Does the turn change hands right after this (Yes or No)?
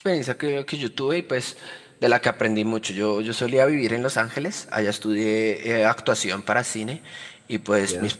No